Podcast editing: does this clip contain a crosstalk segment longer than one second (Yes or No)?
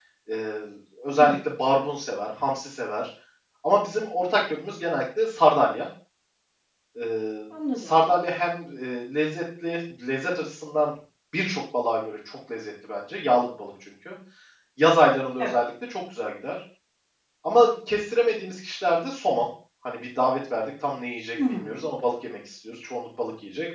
No